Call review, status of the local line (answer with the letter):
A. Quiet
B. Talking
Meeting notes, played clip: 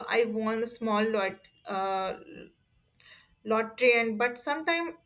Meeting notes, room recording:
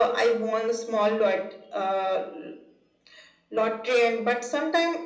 A